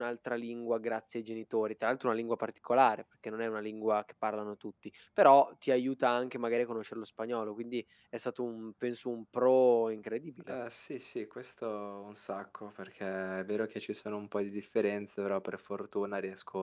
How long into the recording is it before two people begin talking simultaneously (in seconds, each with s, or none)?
none